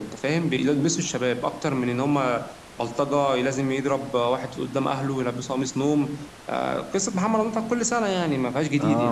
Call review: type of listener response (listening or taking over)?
taking over